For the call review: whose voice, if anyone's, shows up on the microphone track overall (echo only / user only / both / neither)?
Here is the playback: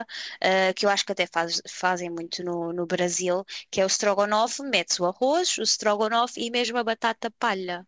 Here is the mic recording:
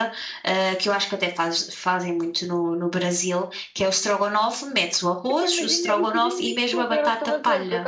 both